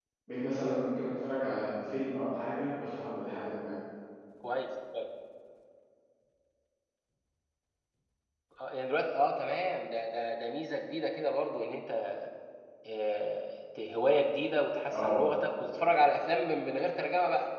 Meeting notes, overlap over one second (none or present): none